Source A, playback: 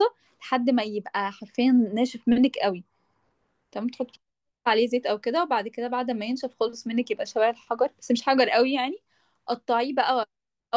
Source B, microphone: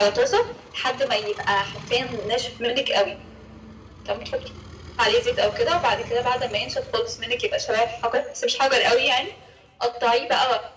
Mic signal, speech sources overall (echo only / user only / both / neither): echo only